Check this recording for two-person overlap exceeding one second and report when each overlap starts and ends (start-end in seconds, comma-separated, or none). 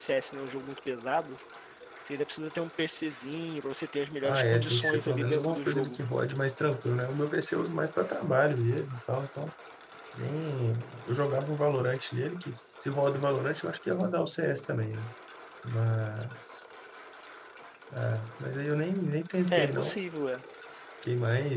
4.2-6.0